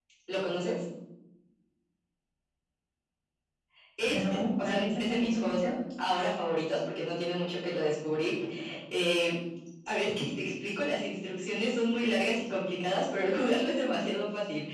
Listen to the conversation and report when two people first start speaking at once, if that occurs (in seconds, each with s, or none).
4.0 s